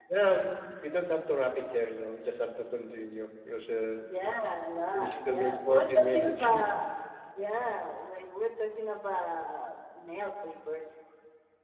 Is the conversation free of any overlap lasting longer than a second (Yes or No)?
No